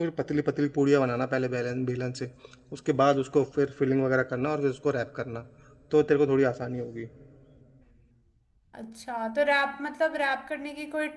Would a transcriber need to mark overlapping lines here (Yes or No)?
No